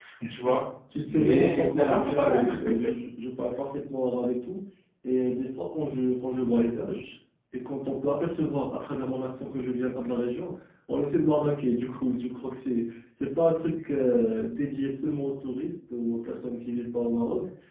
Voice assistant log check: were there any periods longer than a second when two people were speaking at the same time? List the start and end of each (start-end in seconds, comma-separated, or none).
1.1-2.5